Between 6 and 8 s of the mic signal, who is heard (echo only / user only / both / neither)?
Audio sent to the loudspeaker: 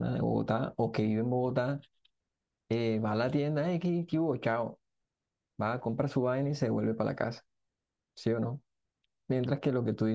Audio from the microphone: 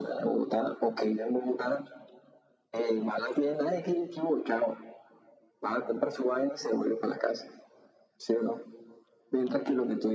echo only